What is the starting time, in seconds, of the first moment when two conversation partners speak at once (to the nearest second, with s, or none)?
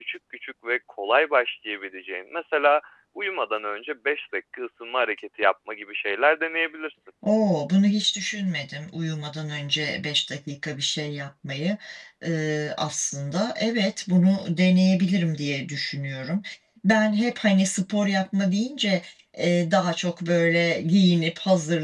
none